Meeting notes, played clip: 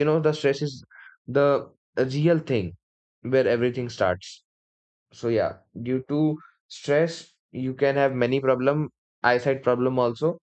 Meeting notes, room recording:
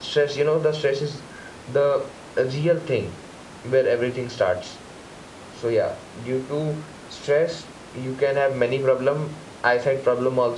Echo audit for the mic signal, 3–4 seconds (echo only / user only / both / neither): echo only